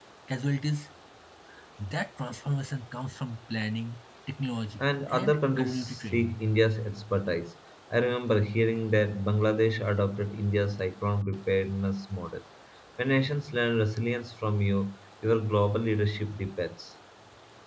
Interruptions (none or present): present